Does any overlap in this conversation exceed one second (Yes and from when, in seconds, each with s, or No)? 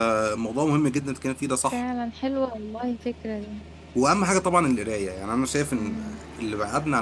No